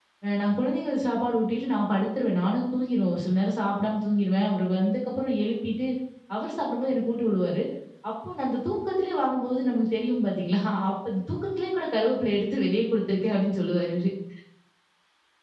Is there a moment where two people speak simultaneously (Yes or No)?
No